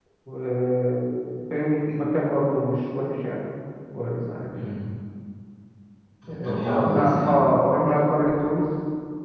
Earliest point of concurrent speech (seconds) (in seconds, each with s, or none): 6.3 s